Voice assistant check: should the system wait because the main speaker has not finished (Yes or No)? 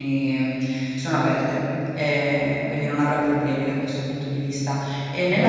Yes